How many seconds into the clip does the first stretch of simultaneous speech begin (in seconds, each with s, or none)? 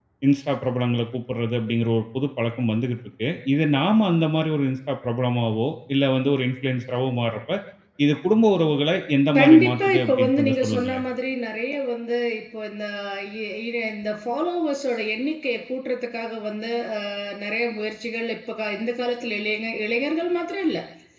9.4 s